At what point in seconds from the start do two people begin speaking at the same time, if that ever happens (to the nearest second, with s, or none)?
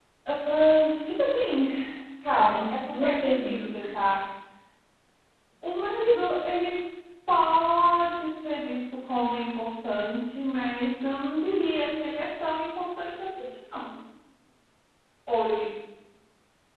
2 s